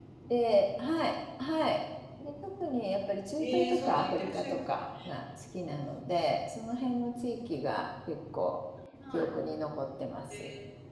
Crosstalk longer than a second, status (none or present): present